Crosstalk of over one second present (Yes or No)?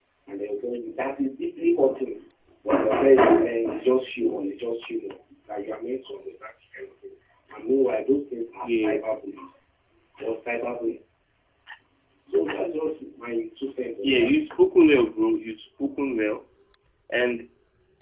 No